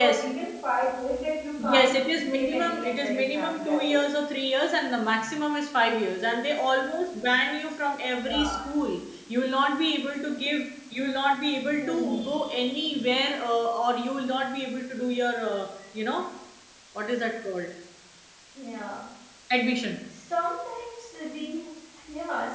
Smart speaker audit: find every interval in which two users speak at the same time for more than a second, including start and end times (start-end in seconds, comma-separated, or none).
2.3-4.0